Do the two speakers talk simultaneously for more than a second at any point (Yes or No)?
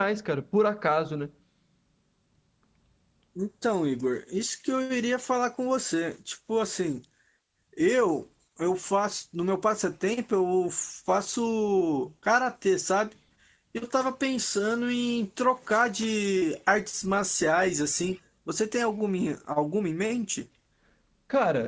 No